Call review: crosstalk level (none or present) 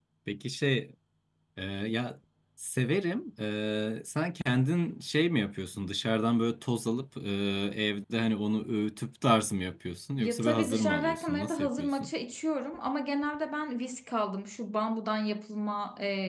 present